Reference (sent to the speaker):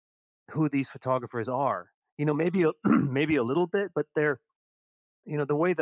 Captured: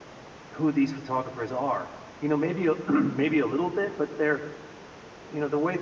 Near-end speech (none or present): none